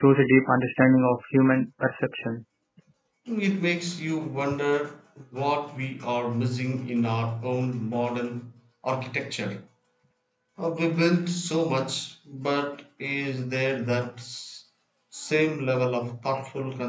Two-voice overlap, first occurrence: none

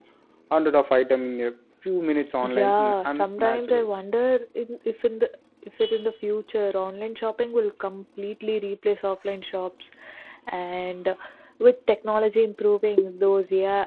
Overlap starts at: 2 s

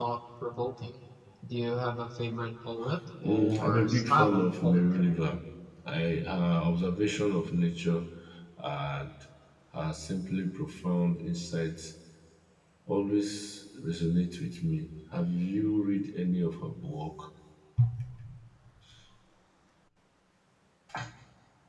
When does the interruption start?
3 s

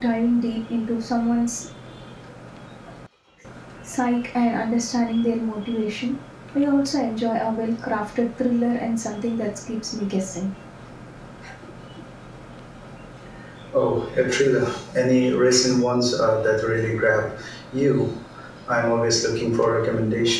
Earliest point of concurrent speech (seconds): none

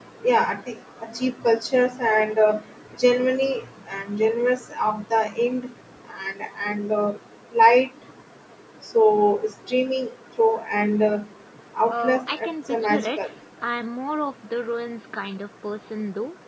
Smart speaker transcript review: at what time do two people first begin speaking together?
12 s

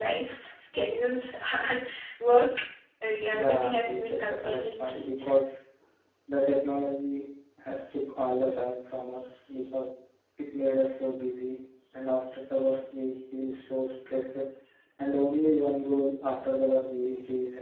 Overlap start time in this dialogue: 3 s

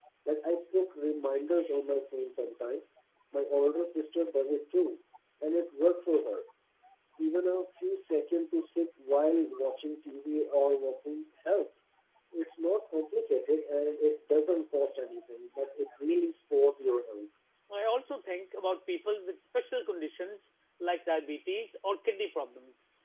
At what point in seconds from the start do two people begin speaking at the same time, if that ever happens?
none

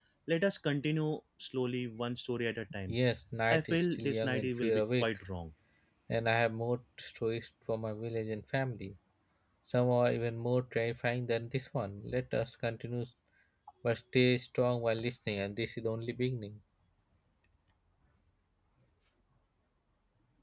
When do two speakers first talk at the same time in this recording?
4 s

